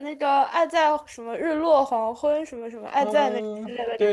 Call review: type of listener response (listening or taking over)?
taking over